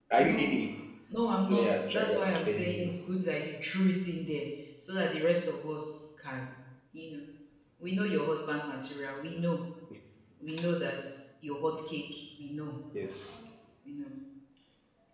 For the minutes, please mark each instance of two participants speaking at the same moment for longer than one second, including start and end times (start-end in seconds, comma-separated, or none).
1.5-2.9